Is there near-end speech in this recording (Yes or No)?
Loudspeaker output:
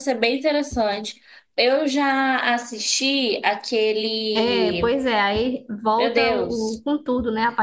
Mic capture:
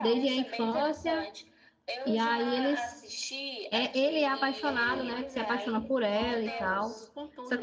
Yes